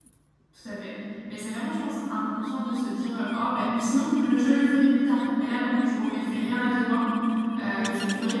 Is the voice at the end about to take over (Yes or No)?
No